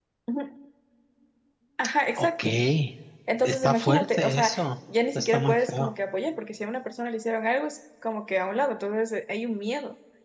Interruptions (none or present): present